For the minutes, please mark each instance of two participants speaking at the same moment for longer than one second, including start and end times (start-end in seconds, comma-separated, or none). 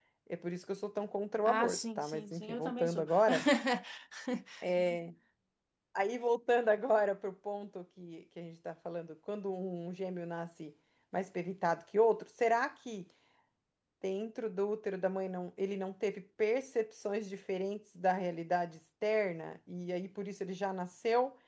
1.4-3.0